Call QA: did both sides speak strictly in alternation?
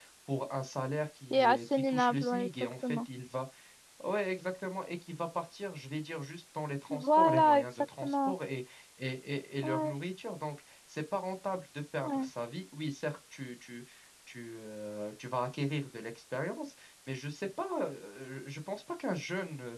No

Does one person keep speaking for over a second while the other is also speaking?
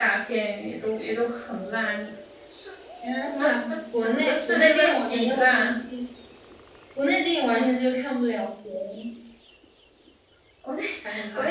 Yes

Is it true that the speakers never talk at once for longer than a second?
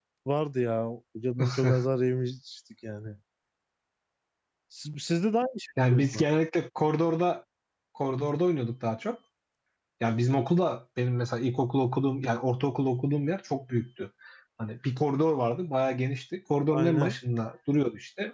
Yes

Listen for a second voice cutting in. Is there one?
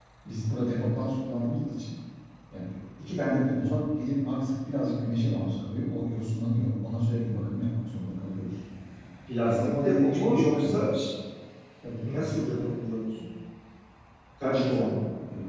Yes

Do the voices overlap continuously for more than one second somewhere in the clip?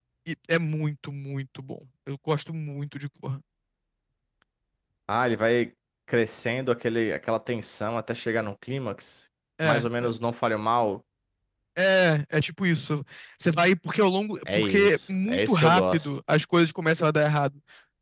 Yes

